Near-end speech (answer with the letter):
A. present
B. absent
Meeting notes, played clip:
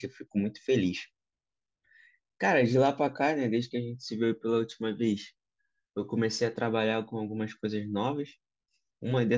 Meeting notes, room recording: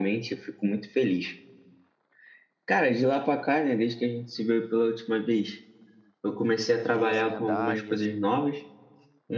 A